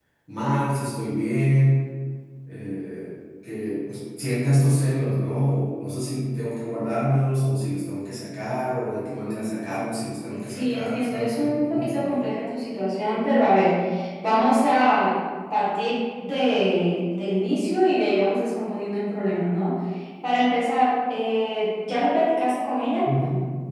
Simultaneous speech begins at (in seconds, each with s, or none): 10.3 s